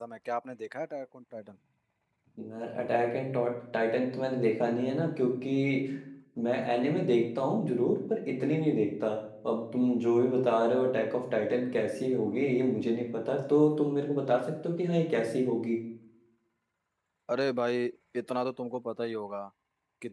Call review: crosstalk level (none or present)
none